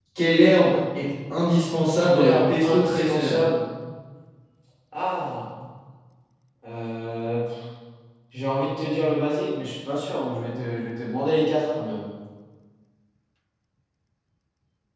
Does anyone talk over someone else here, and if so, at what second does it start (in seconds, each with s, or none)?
2.1 s